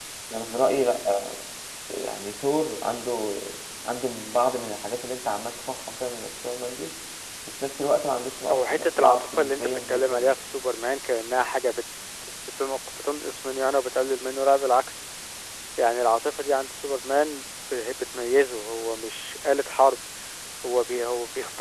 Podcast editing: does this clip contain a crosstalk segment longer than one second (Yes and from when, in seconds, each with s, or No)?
Yes, from 8.5 s